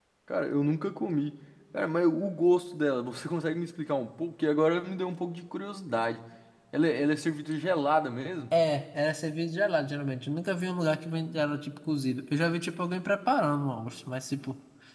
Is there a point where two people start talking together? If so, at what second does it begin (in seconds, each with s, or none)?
none